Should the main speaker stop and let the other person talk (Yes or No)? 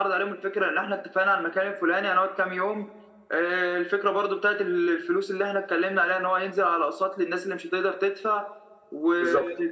No